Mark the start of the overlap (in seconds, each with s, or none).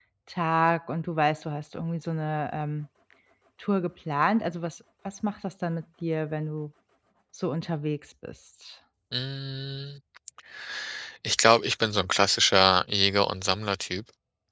none